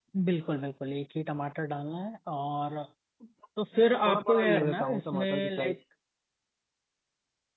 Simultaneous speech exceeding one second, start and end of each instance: 4.0-5.8

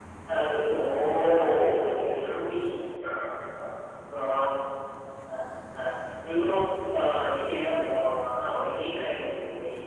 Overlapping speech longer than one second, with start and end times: 0.8-2.8

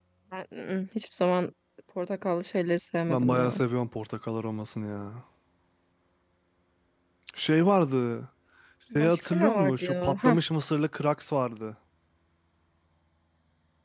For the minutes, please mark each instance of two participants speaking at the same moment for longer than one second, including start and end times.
8.9-10.4

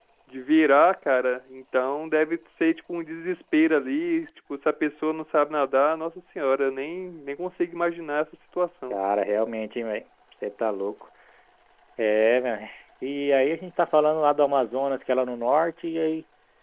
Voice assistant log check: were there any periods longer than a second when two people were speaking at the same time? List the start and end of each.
none

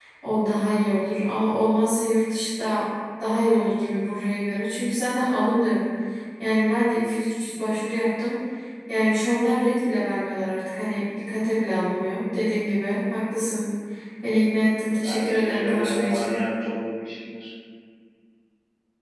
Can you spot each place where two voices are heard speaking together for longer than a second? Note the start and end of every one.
15.0-16.3

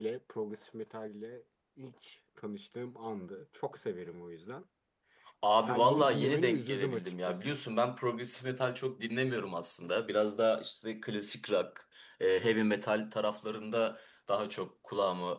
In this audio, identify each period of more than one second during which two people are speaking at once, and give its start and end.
5.6-7.6

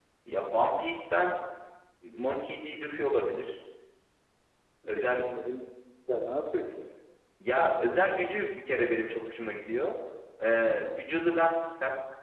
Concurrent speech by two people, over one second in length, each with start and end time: none

